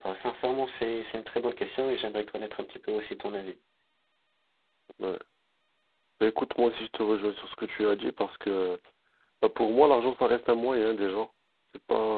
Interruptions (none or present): none